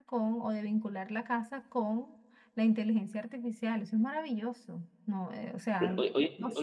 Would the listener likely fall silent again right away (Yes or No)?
No